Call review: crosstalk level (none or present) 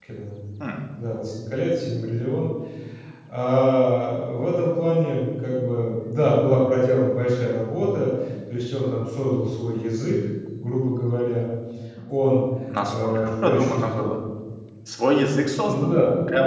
present